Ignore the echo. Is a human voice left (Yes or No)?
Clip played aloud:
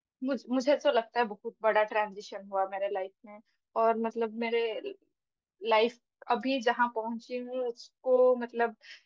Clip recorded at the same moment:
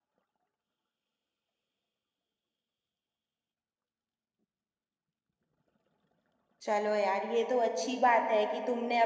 Yes